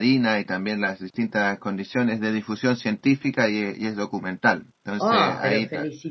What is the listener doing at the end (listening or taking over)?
taking over